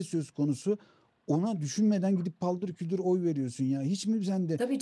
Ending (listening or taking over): taking over